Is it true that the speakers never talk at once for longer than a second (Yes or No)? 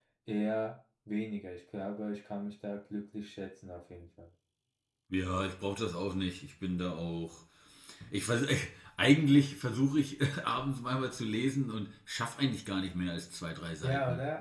Yes